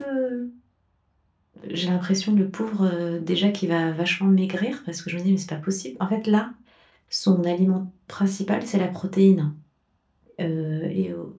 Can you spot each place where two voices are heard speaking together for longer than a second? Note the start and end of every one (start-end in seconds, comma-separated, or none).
none